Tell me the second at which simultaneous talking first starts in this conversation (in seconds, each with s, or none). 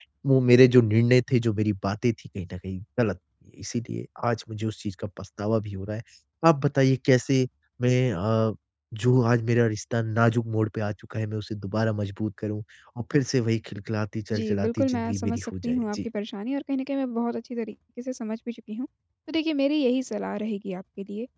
14.3 s